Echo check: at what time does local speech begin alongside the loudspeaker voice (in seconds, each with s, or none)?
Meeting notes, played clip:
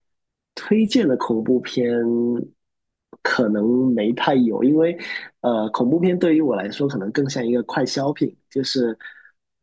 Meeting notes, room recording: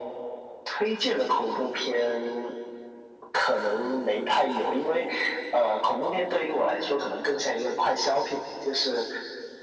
none